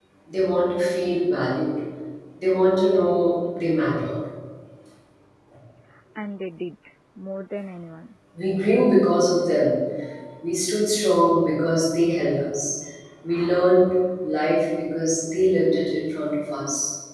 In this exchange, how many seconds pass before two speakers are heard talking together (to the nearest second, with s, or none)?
none